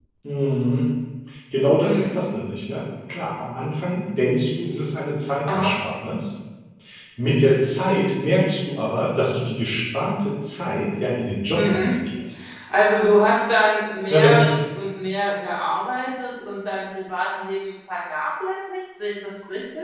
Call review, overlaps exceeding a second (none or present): none